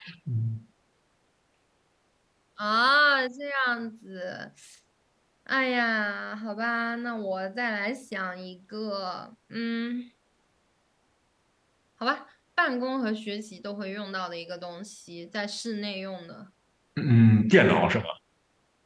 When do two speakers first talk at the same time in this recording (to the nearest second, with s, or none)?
none